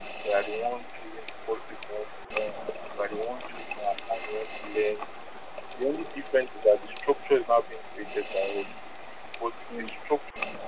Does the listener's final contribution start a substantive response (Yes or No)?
No